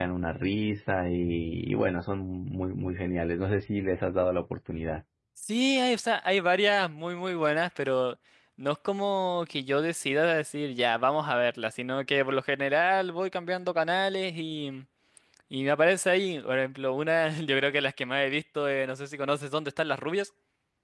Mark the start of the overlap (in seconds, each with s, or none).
none